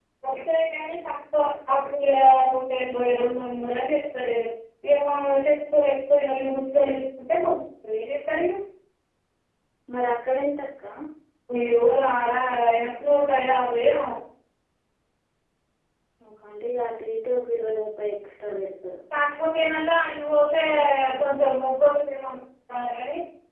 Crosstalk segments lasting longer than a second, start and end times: none

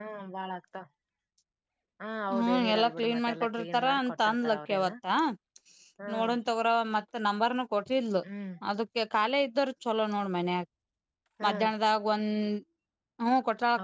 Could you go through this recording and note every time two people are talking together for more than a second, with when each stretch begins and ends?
2.4-4.9

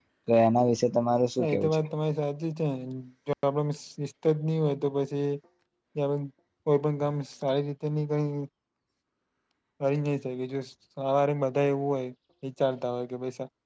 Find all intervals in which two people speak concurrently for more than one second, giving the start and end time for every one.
none

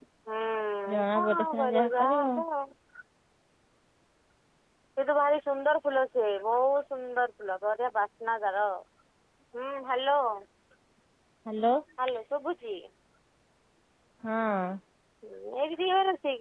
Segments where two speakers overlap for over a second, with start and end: 0.9-2.4

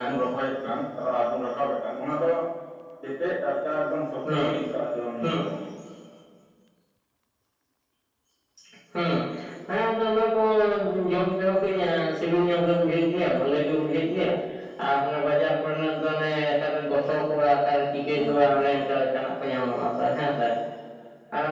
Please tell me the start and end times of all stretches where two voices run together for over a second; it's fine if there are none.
none

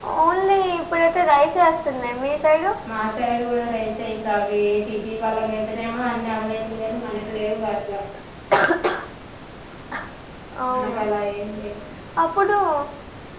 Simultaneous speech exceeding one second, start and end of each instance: none

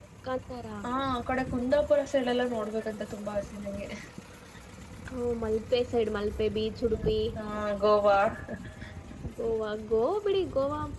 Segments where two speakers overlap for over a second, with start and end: none

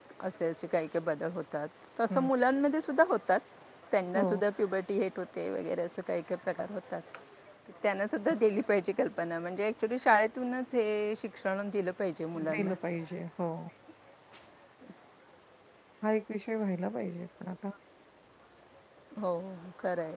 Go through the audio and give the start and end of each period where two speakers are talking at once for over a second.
none

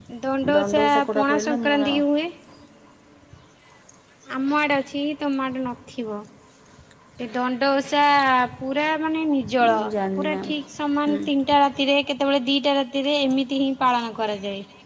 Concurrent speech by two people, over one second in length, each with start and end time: 0.6-2.0

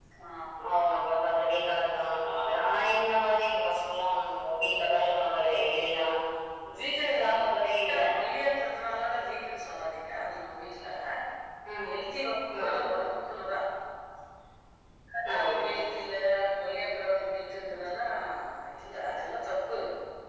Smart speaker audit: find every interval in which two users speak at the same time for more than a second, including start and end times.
none

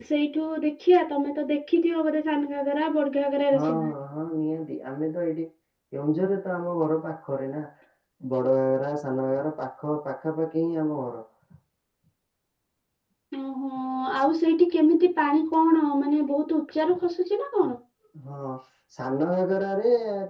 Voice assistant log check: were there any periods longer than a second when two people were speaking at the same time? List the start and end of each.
none

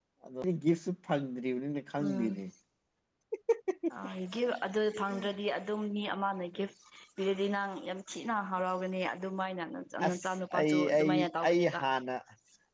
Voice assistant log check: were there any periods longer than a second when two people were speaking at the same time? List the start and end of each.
10.1-11.8

